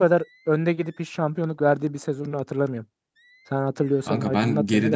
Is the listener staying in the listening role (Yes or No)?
No